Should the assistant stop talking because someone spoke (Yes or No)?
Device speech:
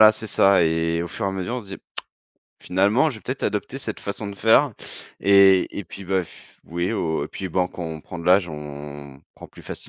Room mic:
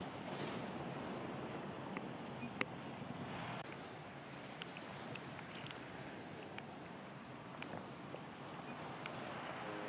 No